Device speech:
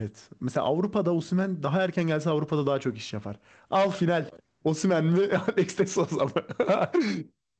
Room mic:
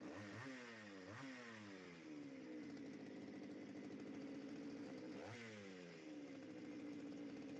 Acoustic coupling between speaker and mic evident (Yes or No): No